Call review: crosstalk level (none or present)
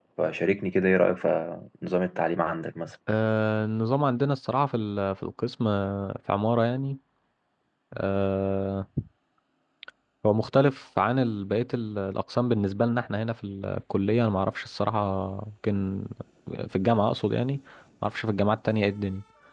none